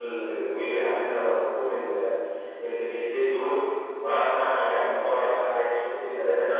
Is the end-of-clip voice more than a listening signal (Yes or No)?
Yes